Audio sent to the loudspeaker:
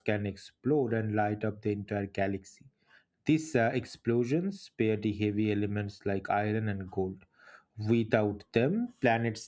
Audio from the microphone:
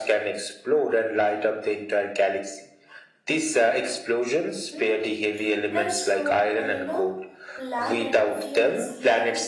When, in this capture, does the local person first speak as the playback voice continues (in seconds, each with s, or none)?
4.7 s